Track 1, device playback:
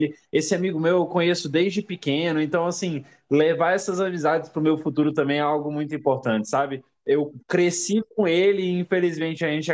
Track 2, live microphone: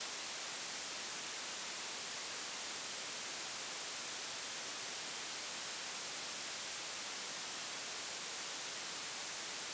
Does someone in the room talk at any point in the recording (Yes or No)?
No